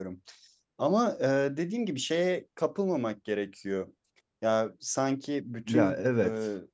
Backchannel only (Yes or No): Yes